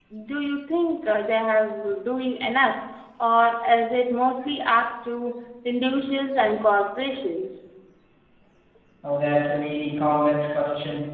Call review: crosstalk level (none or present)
none